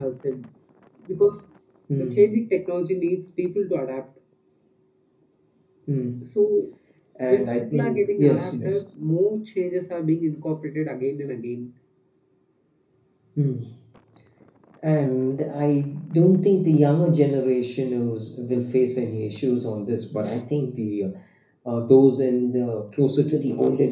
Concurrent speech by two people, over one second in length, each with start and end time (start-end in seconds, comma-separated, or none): 7.3-8.8